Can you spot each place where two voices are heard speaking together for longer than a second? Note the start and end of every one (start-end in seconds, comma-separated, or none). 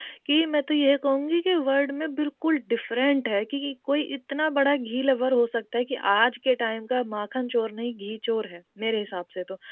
none